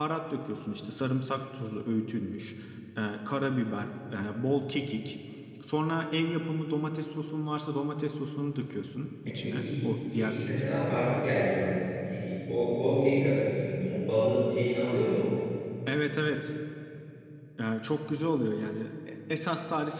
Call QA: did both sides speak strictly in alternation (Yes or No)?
No